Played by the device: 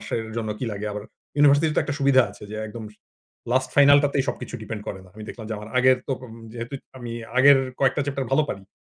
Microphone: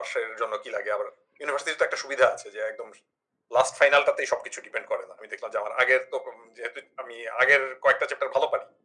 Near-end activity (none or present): none